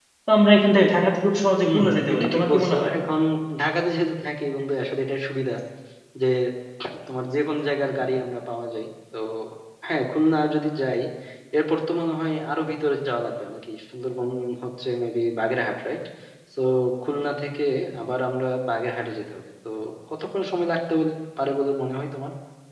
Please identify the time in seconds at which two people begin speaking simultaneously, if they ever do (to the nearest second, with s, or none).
2 s